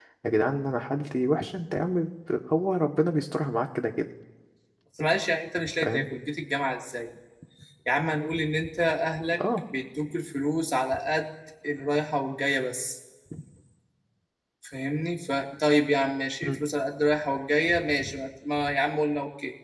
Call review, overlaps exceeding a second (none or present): none